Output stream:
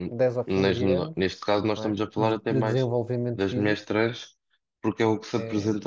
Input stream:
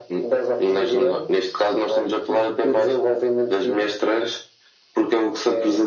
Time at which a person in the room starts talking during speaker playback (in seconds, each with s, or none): none